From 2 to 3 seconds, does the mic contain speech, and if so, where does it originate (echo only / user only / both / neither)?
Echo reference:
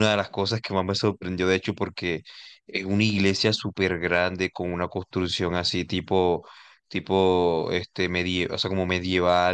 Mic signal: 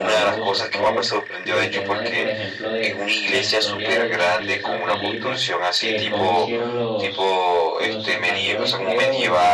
both